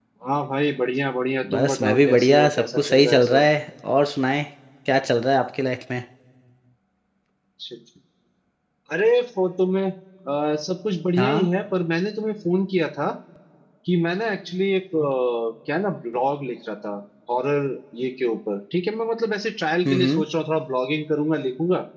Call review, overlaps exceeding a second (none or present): present